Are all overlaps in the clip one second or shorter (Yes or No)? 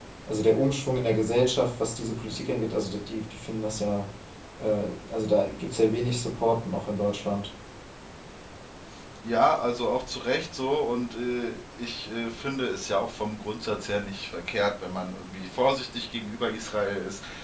Yes